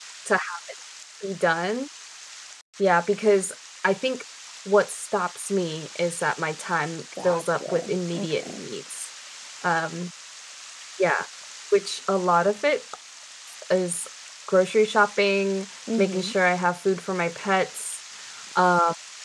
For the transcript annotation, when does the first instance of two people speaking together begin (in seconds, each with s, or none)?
7.2 s